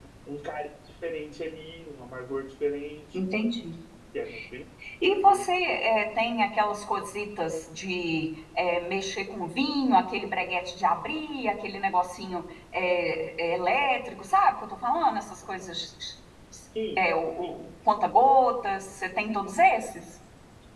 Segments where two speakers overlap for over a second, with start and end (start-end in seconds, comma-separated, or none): none